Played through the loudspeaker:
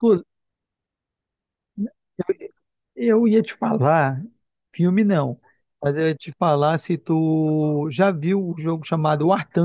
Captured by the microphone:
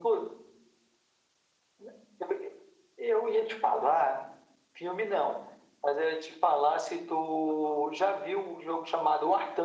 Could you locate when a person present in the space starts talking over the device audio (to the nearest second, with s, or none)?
none